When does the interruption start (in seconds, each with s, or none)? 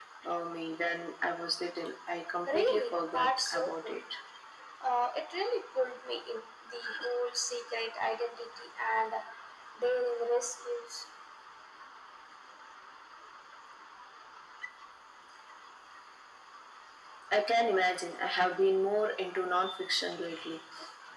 2.5 s